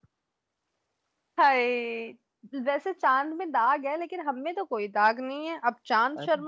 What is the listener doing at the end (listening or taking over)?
listening